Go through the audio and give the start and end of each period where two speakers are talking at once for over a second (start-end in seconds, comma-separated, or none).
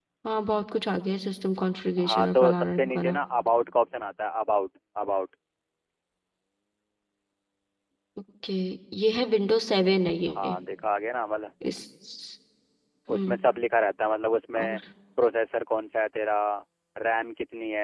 2.0-3.2